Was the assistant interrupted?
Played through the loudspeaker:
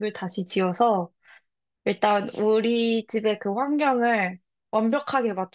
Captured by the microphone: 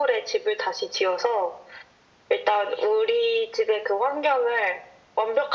No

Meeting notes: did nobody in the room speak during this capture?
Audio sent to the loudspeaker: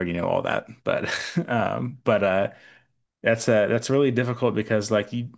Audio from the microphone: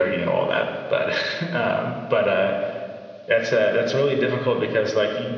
Yes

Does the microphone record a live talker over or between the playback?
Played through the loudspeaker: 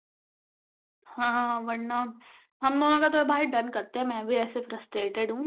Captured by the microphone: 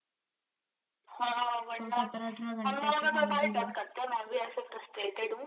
Yes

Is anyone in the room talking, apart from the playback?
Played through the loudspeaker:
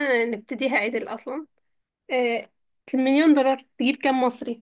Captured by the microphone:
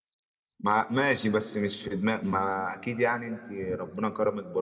Yes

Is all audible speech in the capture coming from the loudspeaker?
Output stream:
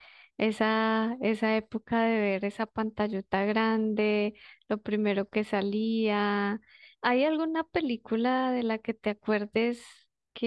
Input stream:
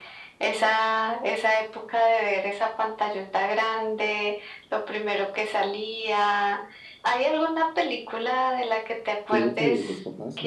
No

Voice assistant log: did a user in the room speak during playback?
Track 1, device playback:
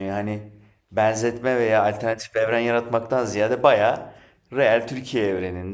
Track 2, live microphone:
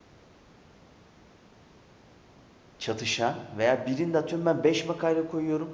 Yes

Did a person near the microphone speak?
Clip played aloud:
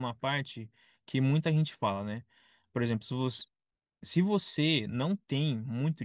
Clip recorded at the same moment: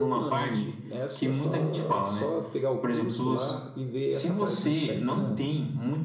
Yes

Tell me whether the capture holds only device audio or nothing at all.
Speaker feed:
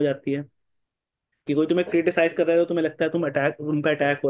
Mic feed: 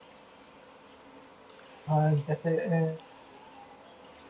No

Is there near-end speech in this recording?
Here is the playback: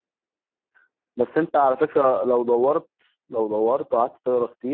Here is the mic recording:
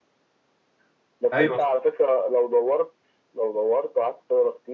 Yes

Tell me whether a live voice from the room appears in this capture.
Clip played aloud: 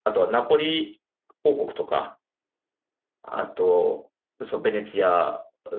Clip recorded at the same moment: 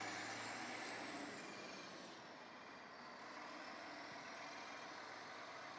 No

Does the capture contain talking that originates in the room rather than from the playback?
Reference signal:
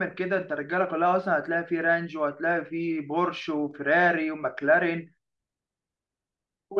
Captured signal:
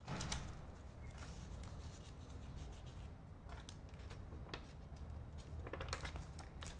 No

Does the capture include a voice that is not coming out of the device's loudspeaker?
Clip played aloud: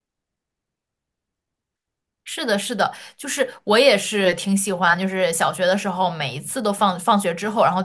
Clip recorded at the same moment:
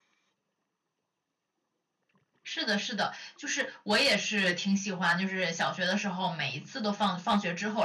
No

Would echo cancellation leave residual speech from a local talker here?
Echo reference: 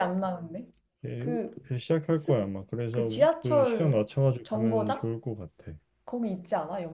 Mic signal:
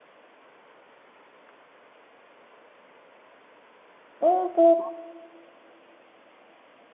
Yes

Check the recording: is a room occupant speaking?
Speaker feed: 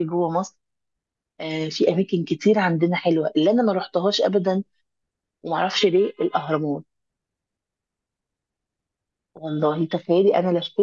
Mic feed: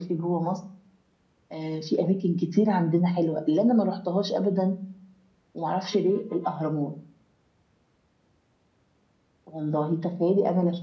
No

